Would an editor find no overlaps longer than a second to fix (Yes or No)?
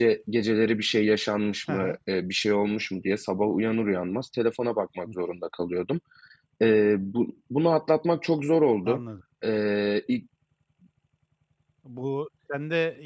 Yes